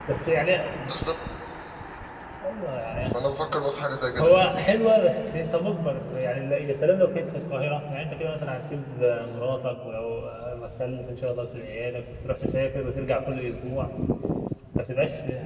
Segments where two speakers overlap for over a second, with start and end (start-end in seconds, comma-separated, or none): none